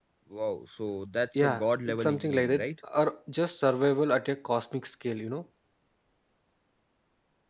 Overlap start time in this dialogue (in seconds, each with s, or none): 1.4 s